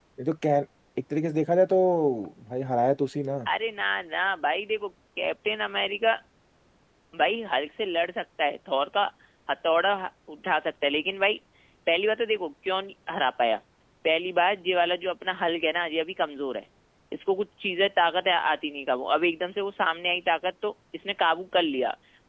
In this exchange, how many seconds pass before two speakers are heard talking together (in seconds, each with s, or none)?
none